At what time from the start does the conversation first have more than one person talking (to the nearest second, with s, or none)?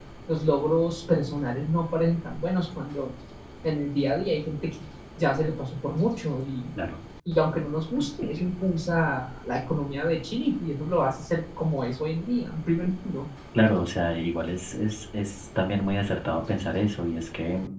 none